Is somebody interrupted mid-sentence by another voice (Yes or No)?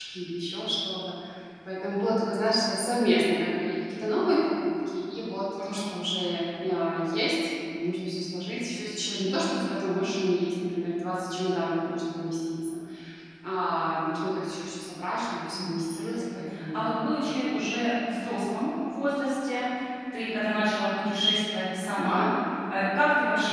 Yes